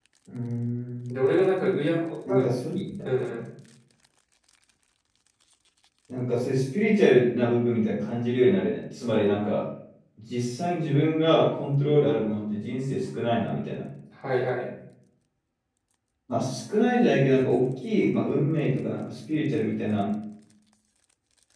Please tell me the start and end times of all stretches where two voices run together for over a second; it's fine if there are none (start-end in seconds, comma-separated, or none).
none